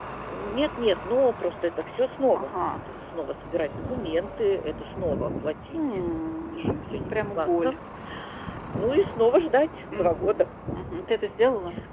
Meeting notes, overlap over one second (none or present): present